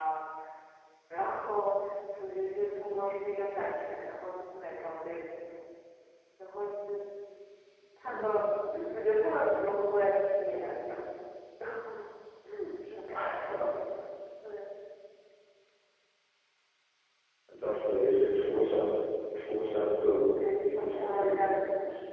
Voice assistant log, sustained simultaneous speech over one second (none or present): present